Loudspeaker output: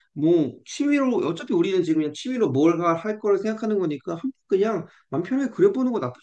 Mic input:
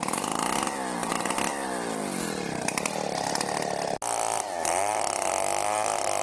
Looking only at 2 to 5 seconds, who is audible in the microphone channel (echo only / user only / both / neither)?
neither